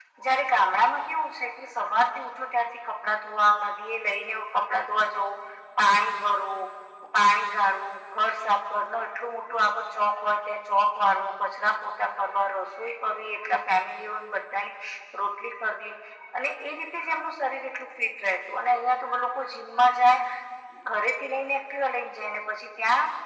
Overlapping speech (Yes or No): No